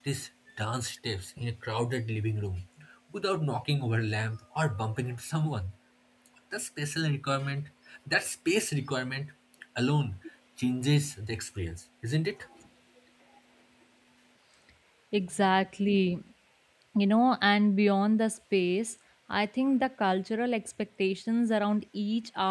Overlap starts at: none

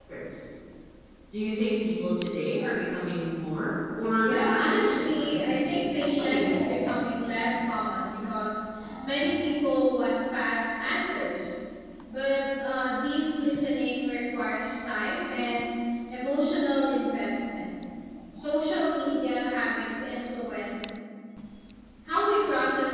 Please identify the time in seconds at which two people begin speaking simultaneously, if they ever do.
4 s

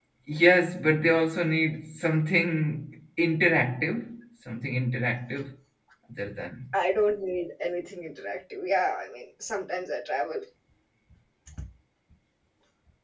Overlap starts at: none

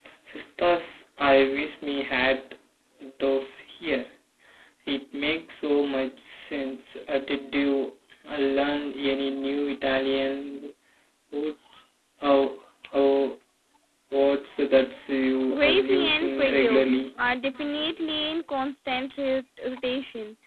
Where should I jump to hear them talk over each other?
16 s

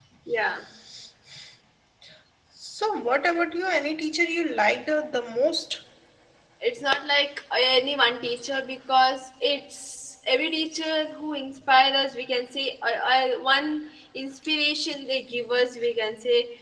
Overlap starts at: none

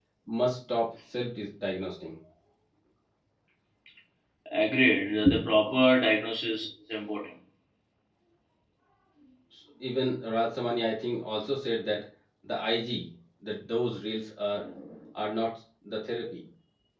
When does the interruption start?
none

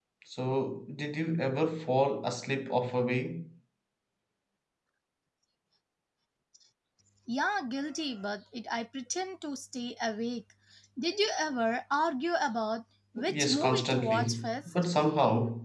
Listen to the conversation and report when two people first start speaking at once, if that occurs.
13 s

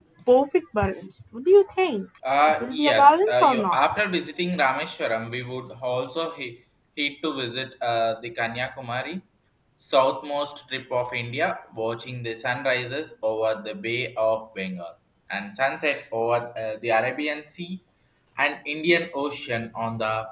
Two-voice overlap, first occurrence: 2 s

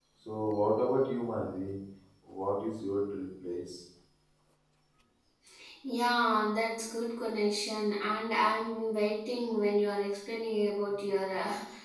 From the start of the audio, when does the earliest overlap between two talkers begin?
none

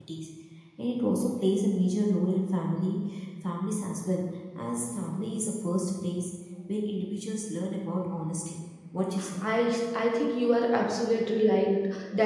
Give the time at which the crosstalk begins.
none

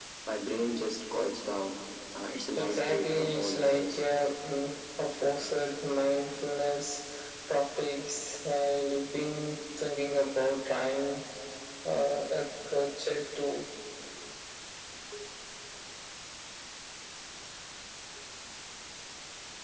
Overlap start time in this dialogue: 3 s

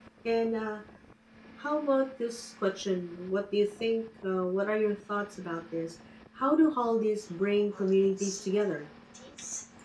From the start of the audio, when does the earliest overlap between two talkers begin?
7 s

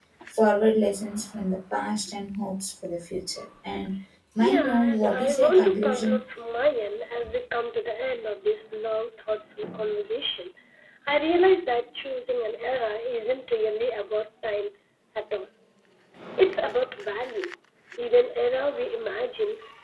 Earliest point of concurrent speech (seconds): 4 s

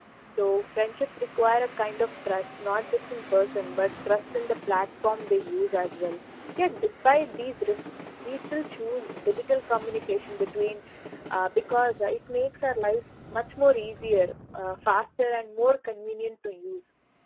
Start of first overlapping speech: none

